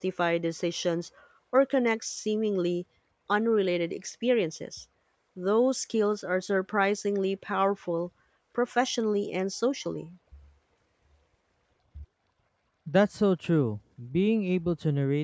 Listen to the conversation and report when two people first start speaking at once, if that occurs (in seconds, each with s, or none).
none